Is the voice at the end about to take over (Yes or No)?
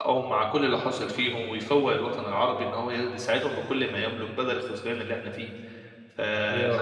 No